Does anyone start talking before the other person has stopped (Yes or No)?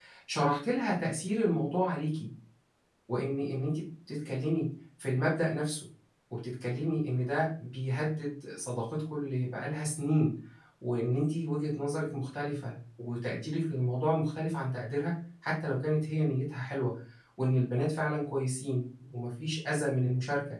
No